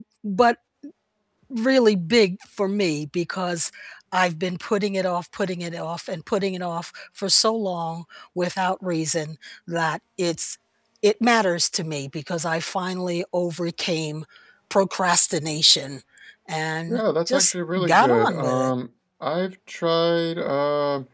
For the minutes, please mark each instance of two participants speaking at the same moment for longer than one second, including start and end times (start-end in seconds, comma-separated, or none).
16.9-18.7